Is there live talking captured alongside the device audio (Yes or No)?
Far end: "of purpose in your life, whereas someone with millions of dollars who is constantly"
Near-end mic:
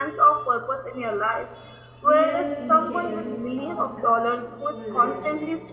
Yes